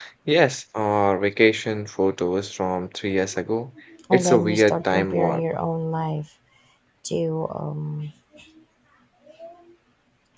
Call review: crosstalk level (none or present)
present